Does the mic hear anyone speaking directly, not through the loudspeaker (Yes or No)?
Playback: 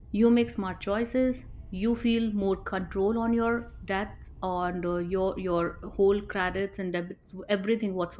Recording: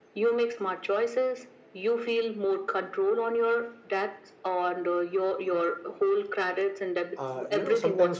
Yes